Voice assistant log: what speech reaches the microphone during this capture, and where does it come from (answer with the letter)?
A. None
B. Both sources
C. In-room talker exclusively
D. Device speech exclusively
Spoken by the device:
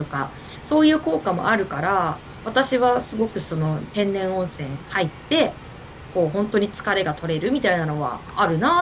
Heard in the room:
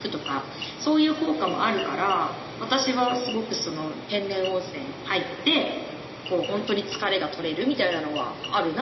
D